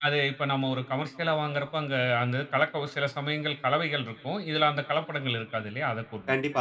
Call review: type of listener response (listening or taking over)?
taking over